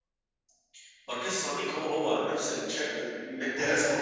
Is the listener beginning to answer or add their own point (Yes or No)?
Yes